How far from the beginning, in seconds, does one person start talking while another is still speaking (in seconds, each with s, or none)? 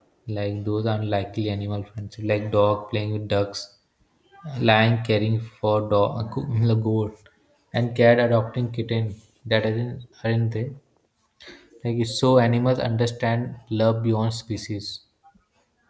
none